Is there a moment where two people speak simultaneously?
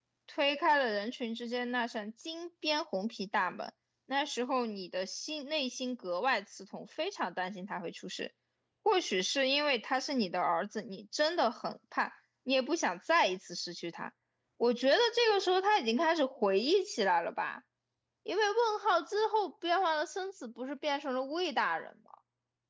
No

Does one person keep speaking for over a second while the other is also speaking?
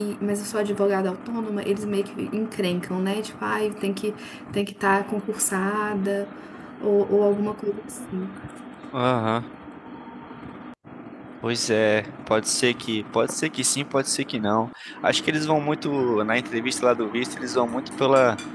No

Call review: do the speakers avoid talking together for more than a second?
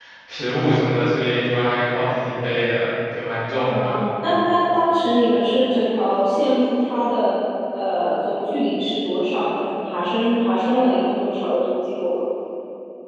Yes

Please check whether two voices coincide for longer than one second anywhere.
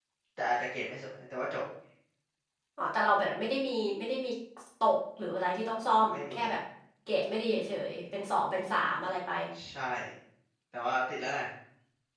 No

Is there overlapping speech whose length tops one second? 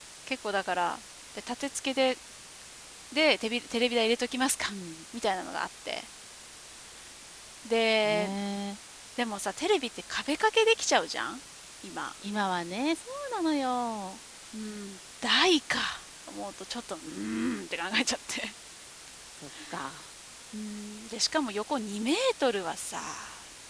No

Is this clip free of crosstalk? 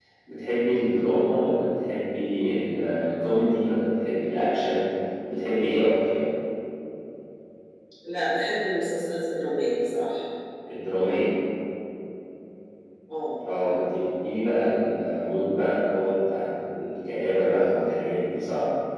Yes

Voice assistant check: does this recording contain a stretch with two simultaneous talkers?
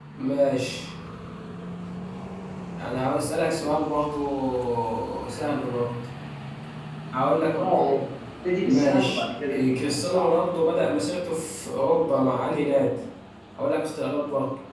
Yes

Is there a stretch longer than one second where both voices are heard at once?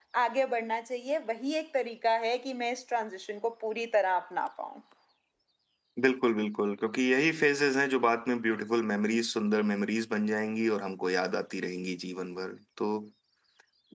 No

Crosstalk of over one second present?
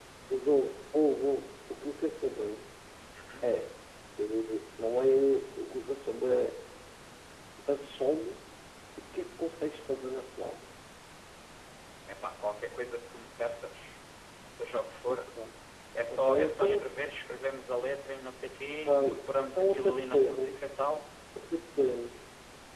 Yes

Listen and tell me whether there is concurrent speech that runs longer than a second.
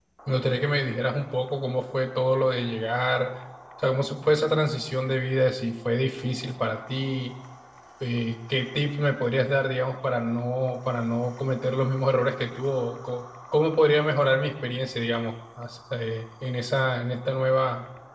No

